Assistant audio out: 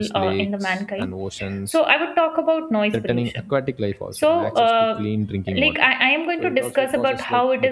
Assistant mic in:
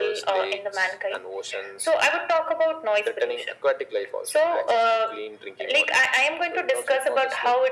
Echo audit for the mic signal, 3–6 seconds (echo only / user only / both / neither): echo only